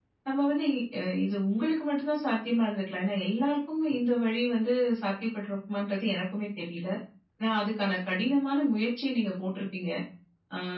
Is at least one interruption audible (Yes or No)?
No